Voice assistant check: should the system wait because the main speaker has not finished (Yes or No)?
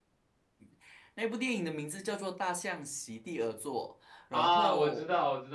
No